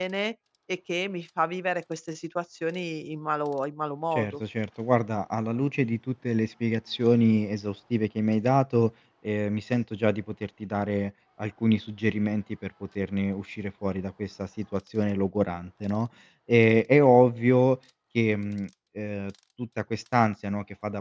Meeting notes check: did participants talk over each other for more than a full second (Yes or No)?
No